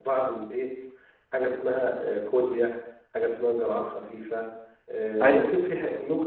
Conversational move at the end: listening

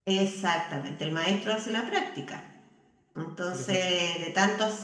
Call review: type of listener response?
listening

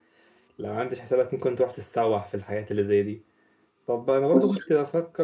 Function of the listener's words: listening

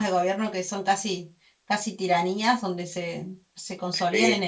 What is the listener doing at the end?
listening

